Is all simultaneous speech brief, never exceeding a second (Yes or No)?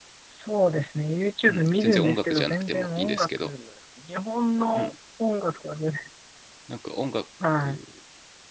No